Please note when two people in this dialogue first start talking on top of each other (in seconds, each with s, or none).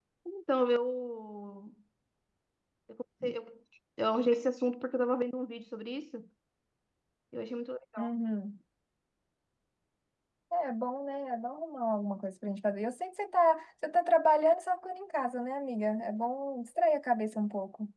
none